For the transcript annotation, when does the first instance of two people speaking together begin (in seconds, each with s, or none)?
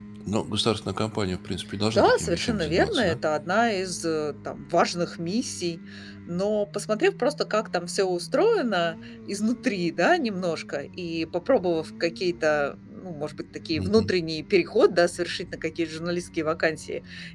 1.9 s